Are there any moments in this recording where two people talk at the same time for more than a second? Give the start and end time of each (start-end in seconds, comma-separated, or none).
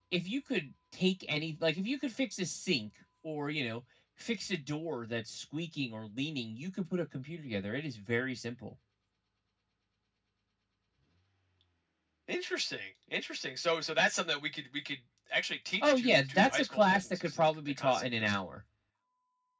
15.8-18.3